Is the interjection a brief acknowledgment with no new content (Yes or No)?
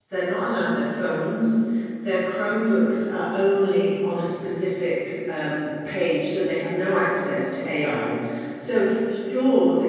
Yes